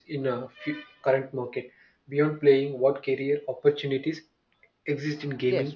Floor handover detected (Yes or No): Yes